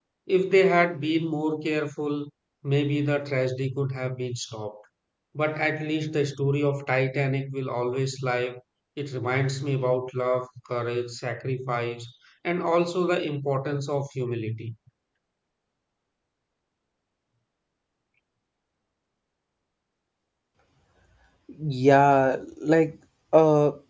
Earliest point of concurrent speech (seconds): none

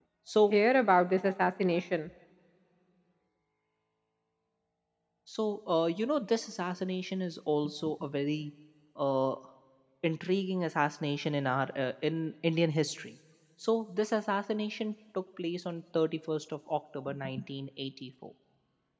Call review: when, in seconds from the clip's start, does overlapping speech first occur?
none

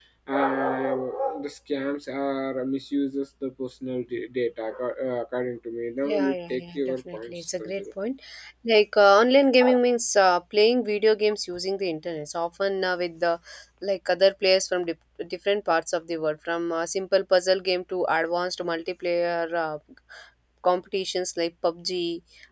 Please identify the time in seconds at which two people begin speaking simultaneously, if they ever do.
6 s

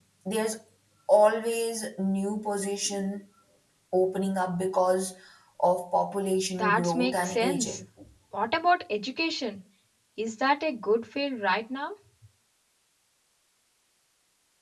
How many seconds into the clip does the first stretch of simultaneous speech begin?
7 s

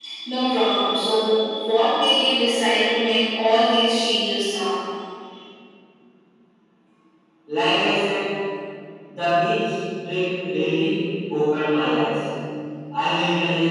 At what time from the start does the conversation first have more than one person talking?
none

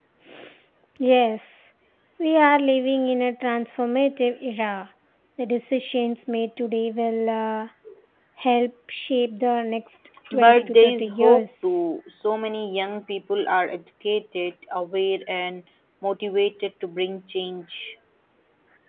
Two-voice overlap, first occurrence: 10 s

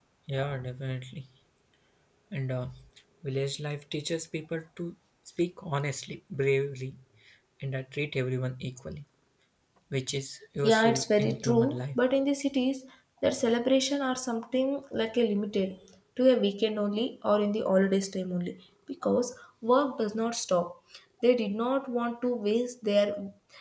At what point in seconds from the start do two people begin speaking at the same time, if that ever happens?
11 s

